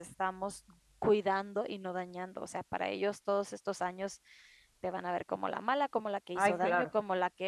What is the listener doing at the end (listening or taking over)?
listening